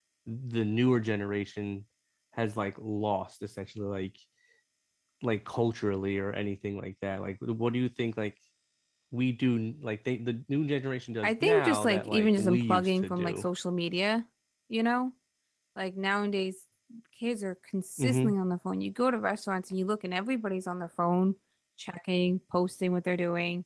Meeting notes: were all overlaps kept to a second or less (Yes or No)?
No